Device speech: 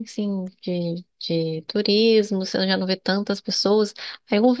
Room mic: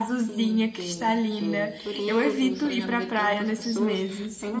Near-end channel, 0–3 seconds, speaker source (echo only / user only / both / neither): both